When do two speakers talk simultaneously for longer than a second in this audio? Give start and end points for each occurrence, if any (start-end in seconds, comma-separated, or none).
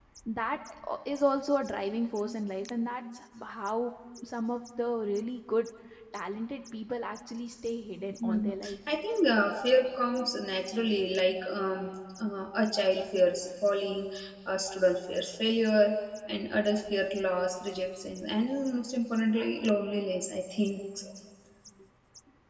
none